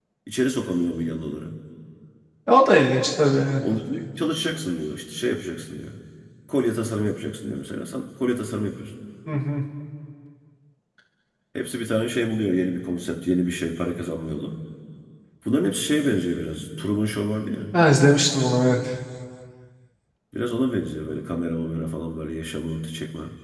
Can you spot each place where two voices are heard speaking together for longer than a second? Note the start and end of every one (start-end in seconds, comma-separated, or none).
none